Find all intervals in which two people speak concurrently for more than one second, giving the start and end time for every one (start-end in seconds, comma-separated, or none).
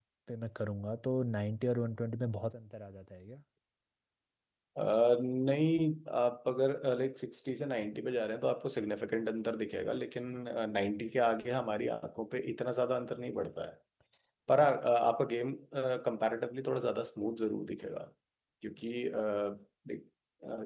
none